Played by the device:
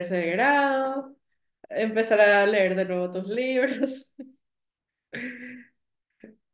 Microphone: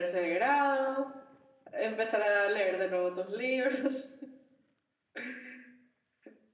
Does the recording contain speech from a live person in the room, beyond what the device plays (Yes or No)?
No